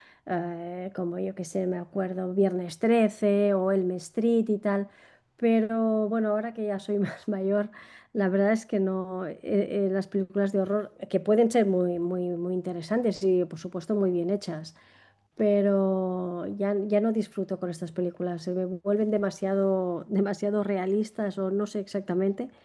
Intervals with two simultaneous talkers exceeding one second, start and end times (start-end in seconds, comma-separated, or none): none